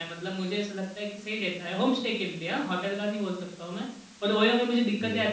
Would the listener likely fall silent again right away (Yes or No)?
Yes